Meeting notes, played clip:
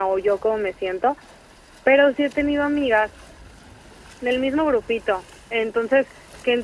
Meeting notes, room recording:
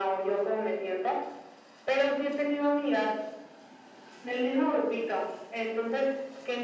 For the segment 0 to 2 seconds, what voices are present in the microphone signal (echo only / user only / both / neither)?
echo only